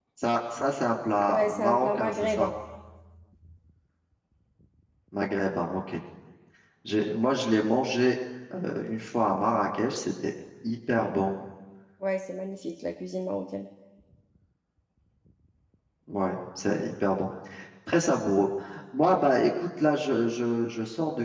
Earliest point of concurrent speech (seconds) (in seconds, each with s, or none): 1.3 s